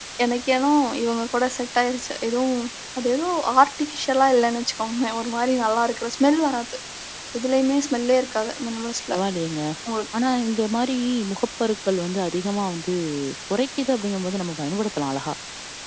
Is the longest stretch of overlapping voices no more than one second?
Yes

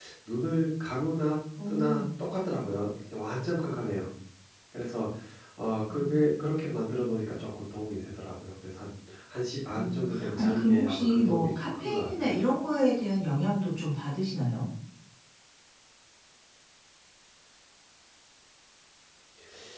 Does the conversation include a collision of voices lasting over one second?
Yes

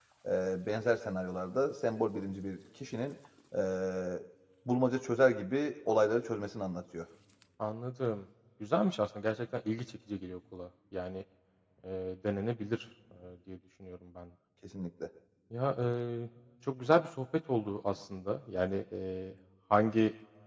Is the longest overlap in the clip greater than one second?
No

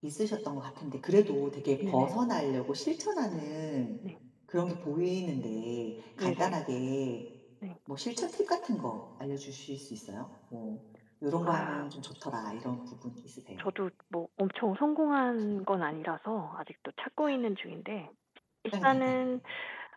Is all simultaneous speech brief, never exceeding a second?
Yes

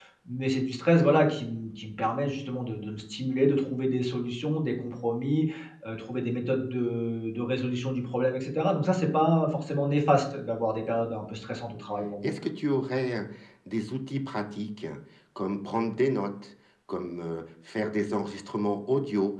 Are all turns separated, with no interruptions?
Yes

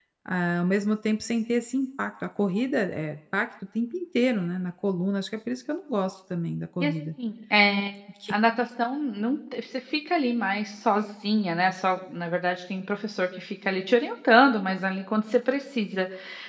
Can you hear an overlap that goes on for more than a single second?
No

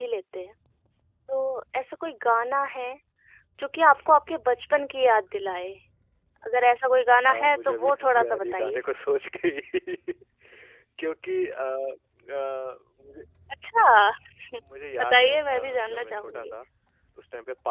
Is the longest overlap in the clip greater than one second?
Yes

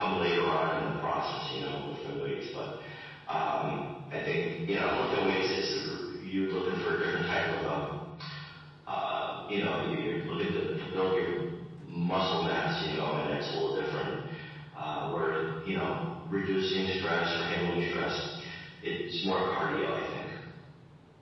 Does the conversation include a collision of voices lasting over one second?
No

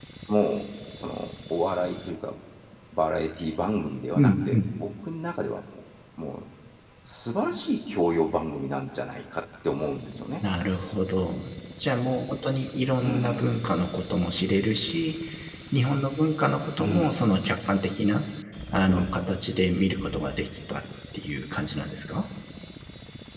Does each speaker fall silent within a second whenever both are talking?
Yes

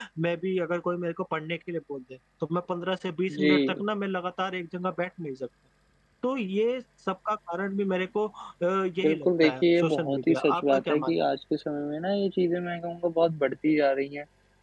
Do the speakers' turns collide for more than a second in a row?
Yes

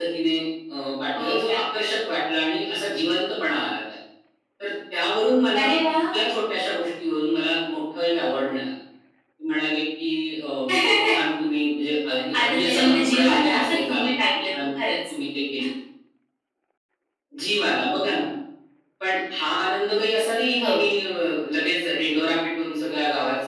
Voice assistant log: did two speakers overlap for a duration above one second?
Yes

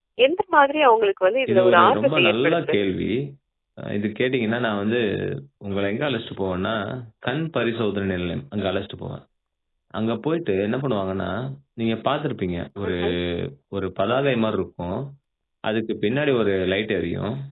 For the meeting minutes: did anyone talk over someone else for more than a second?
Yes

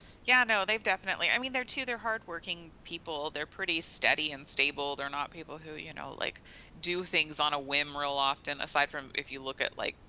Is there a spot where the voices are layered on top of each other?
No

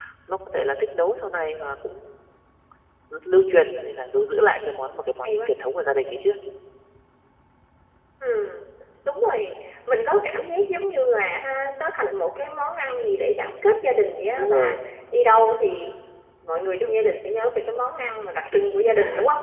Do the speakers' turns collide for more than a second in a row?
No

